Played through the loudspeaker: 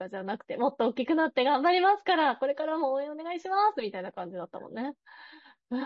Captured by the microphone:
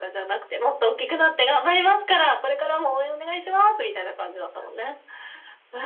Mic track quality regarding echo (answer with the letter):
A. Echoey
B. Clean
A